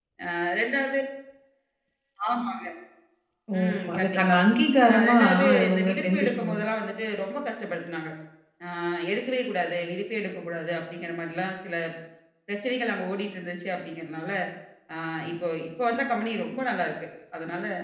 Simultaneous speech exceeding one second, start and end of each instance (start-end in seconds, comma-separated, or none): 4.9-6.5